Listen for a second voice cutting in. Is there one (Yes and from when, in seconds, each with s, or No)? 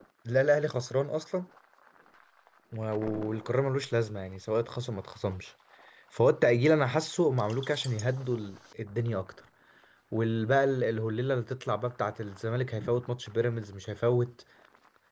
No